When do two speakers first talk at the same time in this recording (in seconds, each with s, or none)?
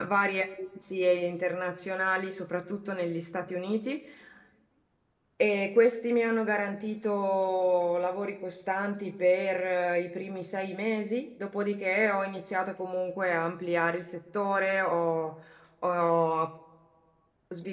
none